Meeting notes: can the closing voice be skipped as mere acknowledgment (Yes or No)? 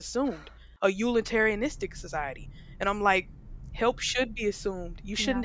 Yes